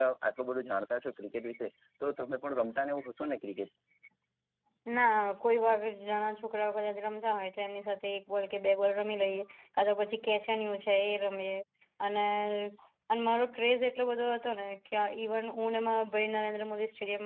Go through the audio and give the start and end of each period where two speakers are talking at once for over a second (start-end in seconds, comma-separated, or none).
none